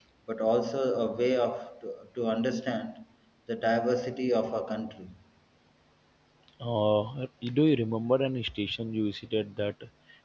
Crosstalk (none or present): none